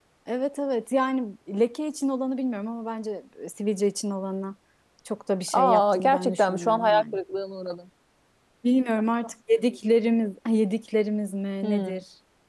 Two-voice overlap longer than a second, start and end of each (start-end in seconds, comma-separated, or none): 5.5-7.2